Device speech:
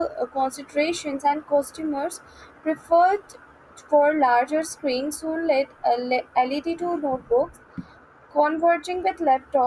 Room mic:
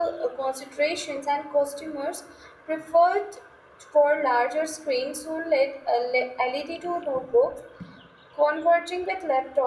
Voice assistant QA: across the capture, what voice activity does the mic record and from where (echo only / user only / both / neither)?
echo only